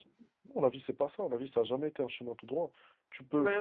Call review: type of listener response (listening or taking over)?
listening